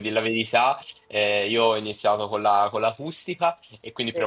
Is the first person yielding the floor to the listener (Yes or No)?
No